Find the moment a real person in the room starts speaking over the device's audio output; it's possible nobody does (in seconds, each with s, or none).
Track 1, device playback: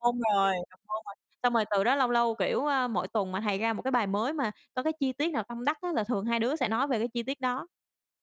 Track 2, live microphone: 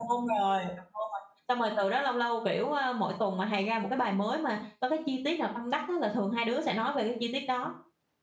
none